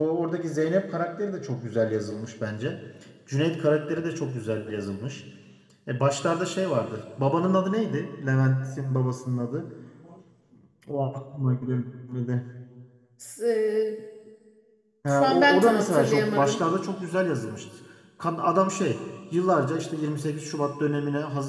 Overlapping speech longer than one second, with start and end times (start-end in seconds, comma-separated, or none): 15.1-16.6